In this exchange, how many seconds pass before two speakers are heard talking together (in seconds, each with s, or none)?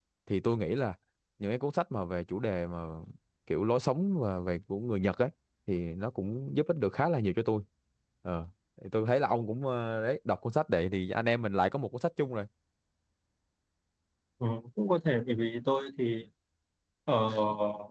none